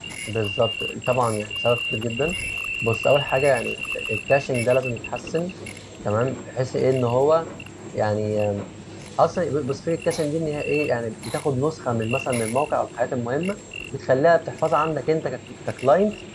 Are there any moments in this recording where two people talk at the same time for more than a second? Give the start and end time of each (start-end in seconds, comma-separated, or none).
none